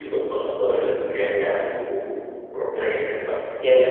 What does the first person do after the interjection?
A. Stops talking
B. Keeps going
A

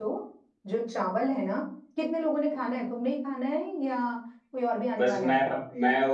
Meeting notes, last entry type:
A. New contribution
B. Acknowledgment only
A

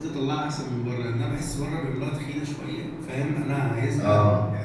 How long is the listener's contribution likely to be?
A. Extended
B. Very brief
B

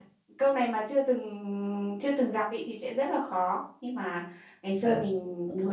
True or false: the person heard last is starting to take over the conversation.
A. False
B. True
A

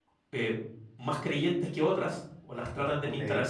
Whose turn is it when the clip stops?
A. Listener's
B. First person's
B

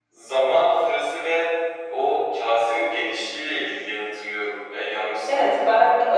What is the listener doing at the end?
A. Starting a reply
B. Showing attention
A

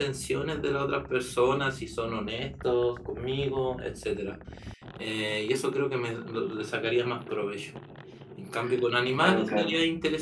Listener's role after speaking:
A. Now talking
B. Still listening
B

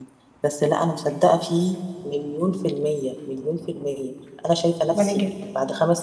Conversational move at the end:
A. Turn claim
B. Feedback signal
B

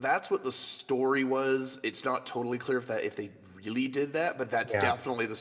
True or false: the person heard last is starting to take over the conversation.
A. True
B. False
B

